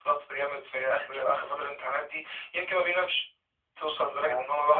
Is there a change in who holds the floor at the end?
No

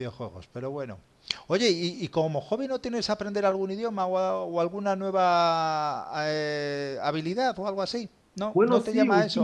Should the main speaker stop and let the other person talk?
Yes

